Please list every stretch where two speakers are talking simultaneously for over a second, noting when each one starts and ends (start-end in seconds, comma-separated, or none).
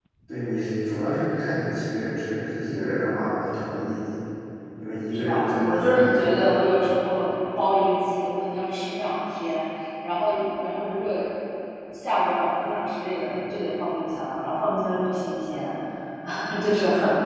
5.1-6.6